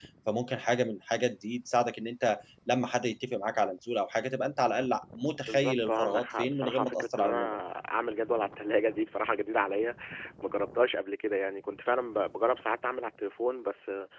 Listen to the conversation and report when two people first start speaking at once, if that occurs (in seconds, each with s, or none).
5.5 s